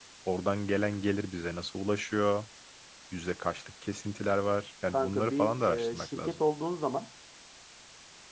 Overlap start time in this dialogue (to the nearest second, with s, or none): 5 s